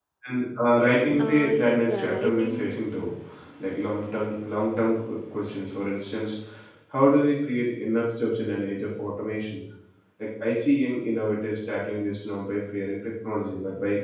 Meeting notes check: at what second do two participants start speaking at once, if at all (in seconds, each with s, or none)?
1.2 s